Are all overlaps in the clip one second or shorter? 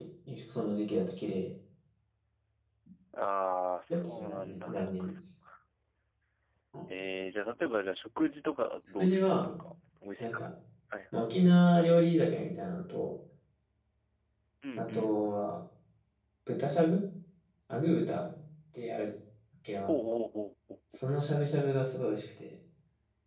No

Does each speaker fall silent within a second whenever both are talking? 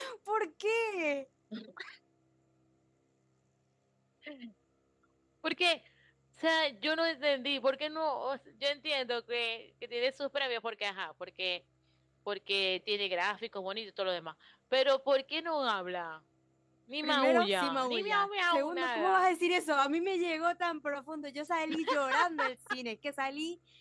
No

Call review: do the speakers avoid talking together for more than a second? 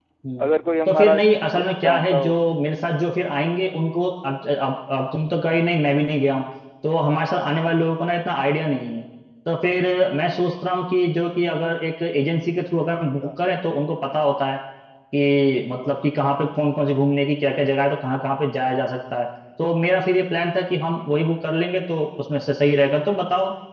No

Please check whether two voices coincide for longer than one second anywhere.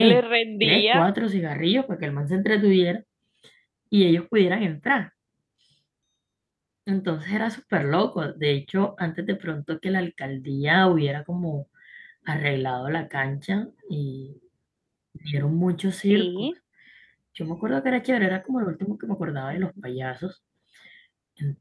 No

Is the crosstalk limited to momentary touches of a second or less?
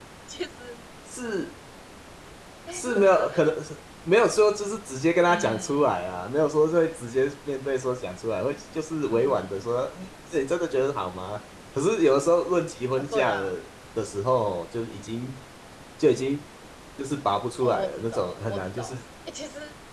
No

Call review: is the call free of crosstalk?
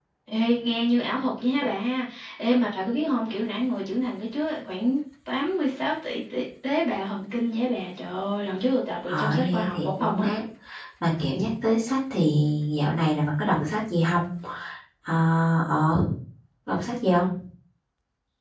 No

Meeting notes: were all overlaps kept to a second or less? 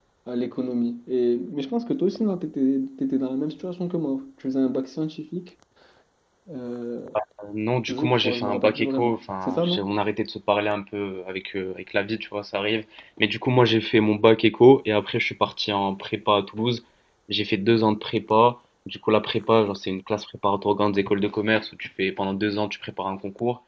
No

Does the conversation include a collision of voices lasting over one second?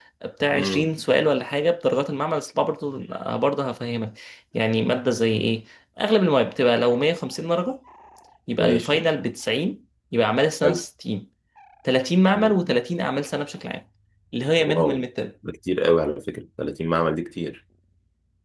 No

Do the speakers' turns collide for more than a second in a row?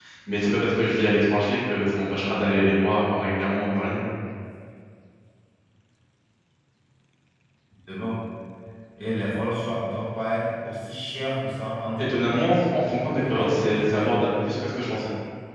Yes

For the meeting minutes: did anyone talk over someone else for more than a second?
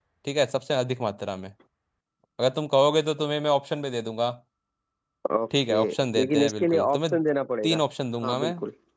Yes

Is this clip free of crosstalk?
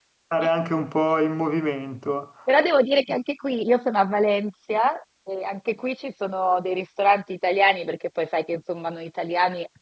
Yes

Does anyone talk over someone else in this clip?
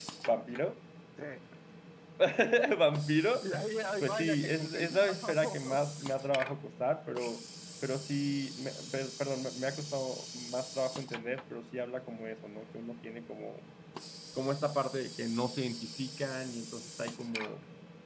Yes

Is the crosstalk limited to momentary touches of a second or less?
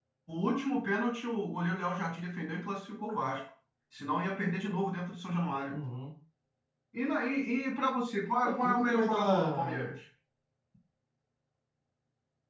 No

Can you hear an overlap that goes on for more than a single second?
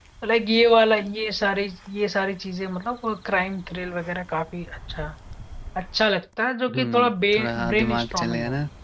Yes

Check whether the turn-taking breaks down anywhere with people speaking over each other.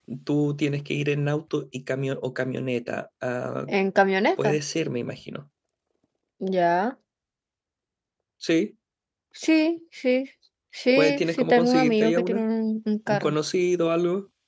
Yes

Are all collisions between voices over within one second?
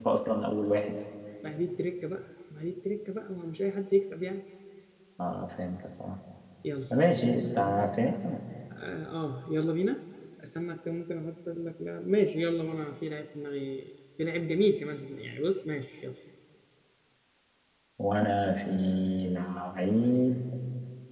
Yes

